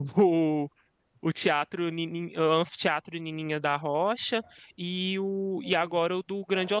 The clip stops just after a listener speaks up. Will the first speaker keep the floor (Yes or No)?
Yes